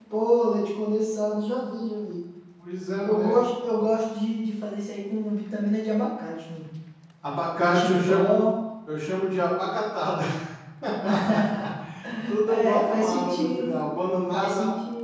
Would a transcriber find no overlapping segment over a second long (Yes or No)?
No